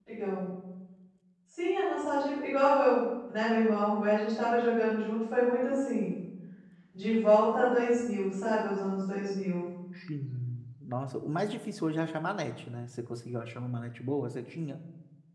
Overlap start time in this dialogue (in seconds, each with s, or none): none